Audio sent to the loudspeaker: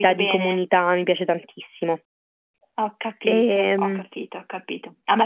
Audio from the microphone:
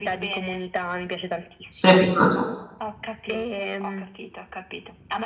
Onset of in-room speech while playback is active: 2 s

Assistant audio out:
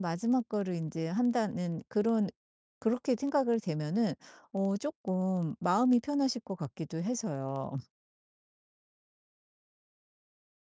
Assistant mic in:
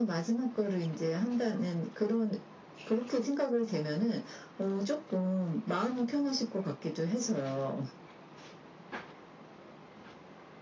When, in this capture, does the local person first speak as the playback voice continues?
none

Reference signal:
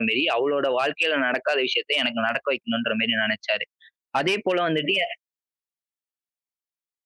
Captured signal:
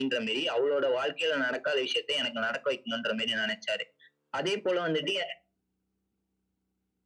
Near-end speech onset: none

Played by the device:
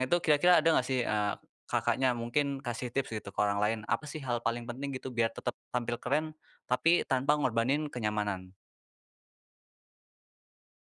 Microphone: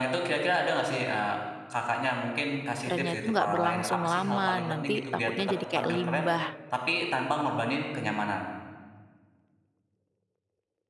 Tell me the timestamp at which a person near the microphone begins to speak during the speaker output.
3 s

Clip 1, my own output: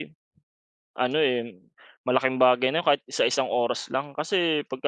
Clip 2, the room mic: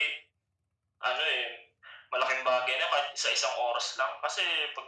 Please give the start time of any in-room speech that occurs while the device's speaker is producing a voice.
none

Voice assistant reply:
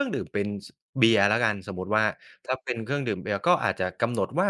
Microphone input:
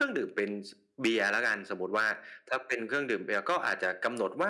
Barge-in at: none

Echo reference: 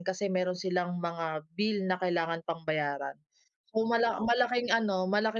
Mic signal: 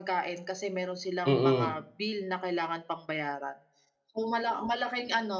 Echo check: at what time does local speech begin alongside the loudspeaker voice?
1 s

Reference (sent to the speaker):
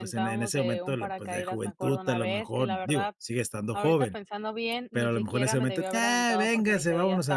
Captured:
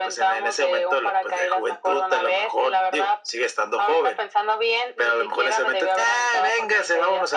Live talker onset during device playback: none

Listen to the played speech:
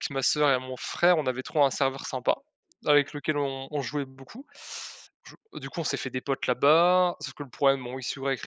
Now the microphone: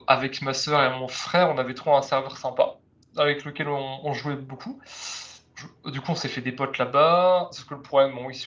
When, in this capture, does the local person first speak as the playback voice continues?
none

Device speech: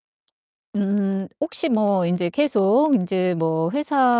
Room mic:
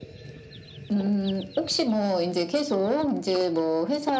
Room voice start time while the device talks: none

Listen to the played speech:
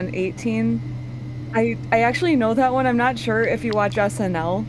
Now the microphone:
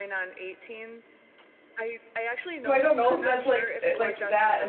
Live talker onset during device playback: 3 s

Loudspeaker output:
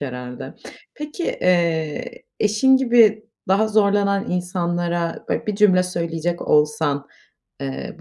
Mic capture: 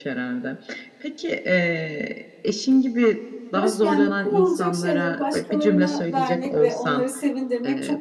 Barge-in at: 4 s

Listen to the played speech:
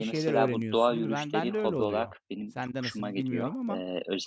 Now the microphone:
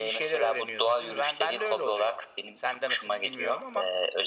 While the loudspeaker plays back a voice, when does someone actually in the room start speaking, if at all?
none

